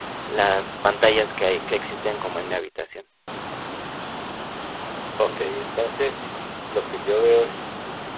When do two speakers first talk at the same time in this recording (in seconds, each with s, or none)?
none